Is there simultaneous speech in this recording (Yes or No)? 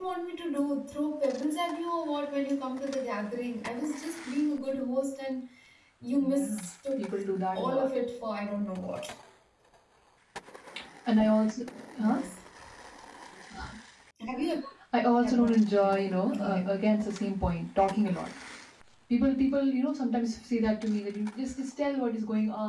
Yes